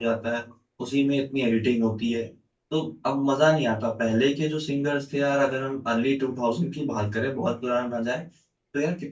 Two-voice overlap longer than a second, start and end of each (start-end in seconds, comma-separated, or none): none